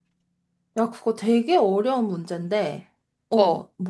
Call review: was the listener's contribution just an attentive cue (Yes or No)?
Yes